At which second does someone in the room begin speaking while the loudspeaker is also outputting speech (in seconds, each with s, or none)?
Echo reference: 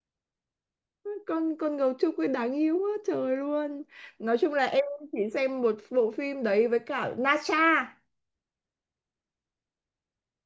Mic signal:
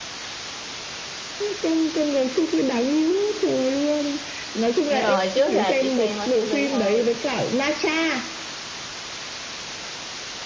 4.9 s